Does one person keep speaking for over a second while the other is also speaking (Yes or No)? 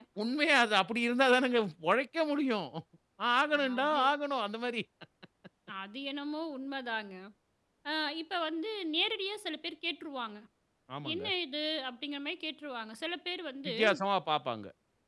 No